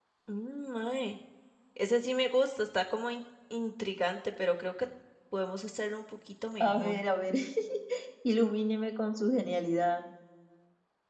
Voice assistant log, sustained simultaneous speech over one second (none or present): none